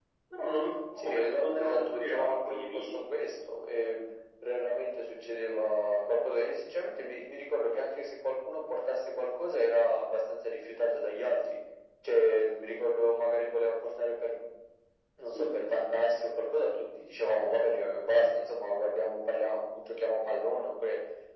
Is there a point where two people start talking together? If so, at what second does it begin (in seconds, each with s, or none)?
1.0 s